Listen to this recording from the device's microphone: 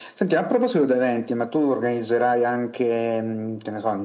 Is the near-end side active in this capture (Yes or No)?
No